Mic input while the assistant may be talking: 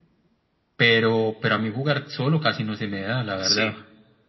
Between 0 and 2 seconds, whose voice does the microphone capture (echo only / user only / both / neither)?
echo only